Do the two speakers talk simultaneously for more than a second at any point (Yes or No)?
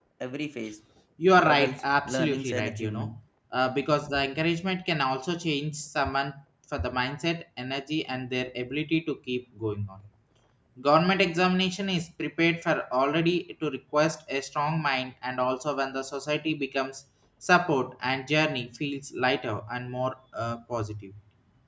Yes